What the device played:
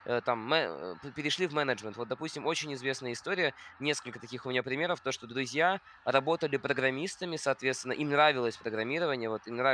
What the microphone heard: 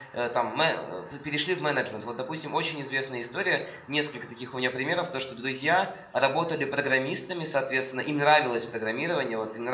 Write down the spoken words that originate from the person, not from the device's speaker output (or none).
none